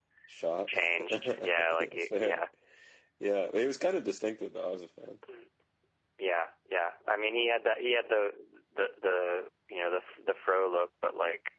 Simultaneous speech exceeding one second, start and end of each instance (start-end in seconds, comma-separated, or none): 0.7-2.4